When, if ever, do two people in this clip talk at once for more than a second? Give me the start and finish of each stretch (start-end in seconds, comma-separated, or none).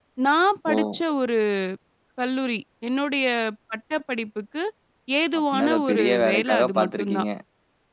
5.4-7.2